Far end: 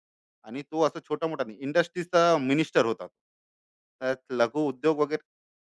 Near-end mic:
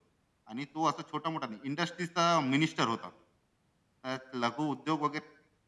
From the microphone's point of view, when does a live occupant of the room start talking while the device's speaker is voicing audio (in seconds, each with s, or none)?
none